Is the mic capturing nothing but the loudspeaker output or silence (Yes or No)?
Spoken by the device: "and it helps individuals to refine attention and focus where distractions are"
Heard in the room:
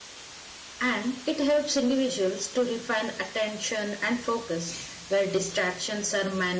Yes